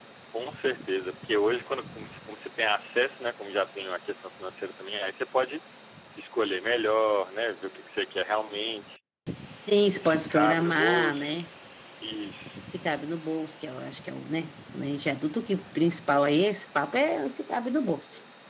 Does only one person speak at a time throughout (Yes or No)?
No